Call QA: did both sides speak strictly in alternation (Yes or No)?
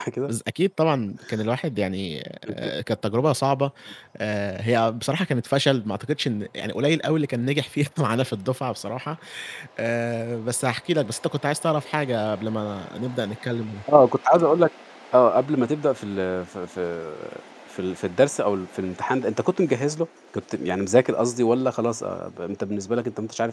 Yes